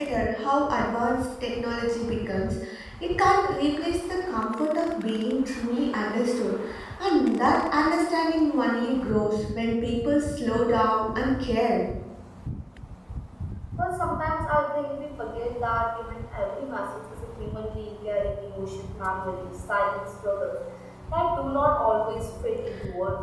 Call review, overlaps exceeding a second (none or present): none